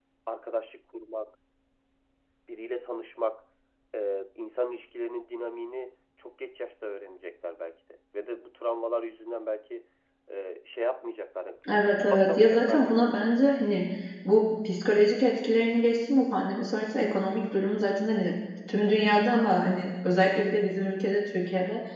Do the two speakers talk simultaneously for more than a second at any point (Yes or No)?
Yes